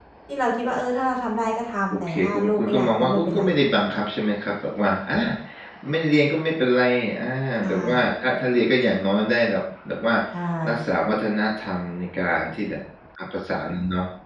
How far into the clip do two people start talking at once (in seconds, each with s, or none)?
1.9 s